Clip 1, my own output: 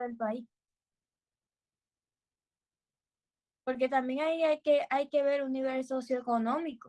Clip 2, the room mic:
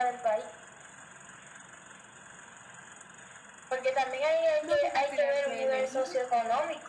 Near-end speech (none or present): present